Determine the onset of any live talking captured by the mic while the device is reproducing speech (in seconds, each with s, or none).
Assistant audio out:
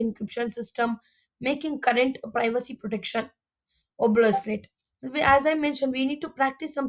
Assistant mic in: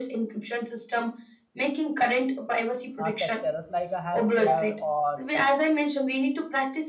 3.0 s